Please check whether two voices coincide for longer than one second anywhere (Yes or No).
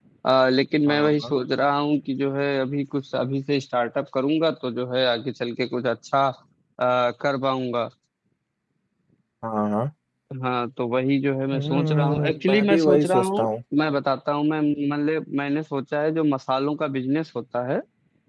Yes